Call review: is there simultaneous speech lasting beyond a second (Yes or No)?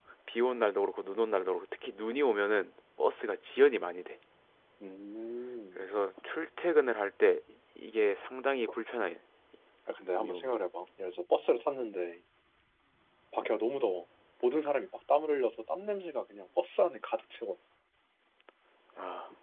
No